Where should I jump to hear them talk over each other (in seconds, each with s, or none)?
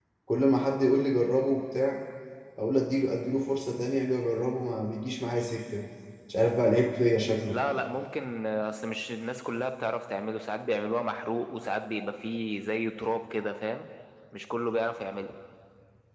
none